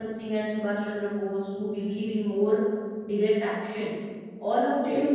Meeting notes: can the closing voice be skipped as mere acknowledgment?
Yes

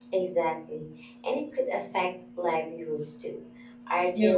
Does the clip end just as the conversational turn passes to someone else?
No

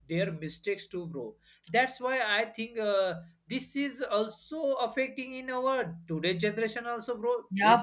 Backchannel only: No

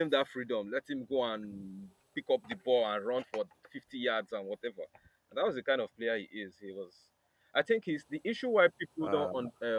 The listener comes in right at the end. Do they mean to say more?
No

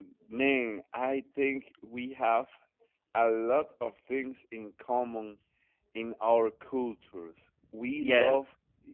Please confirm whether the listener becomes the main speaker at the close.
No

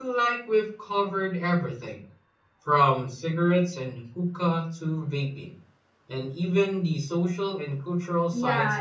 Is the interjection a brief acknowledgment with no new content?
No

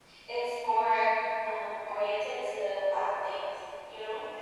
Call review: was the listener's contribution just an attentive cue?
Yes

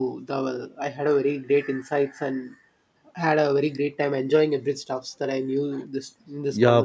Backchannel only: No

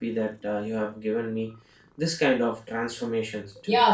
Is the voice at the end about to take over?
Yes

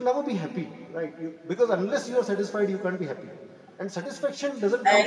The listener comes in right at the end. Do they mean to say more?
No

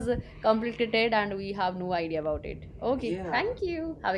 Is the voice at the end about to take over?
Yes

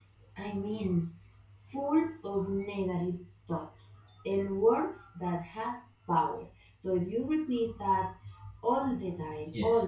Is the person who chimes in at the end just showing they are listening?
Yes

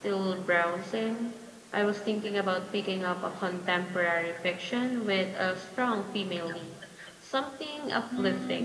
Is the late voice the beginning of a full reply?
Yes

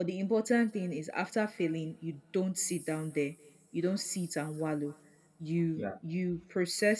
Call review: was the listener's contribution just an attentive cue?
Yes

